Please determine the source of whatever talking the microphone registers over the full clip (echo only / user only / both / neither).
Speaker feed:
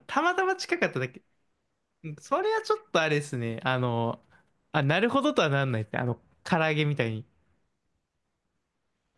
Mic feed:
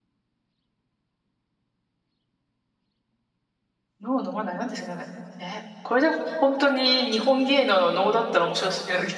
user only